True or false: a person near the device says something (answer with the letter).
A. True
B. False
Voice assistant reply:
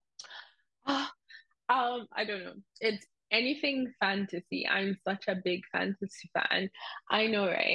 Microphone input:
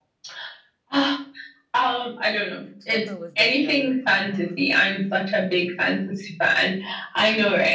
A